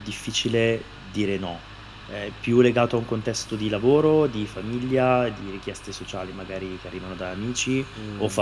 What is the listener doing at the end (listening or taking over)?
listening